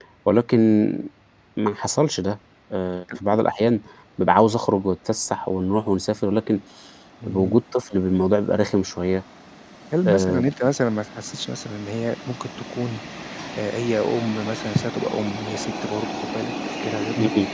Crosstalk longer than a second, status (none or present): none